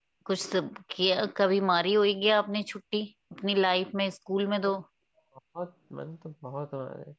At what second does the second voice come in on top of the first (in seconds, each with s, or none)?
none